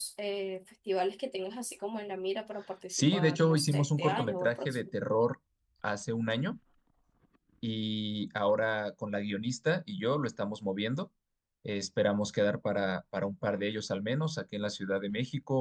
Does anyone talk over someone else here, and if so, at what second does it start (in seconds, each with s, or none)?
2.9 s